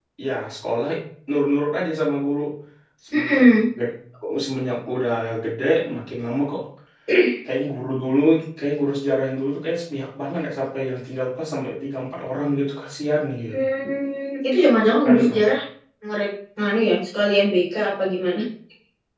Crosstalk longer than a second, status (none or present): none